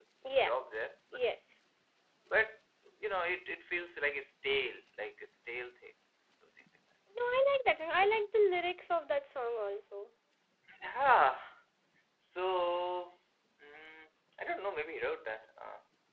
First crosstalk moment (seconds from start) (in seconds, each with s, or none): none